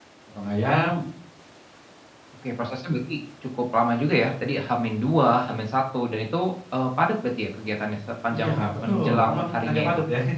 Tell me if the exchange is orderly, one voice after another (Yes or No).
No